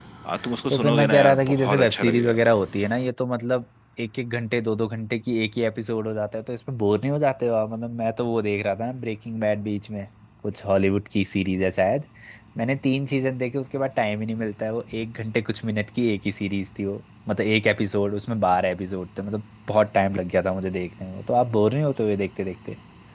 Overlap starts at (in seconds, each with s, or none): 0.7 s